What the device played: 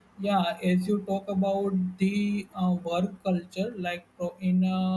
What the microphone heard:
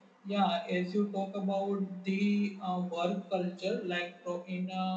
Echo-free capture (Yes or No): No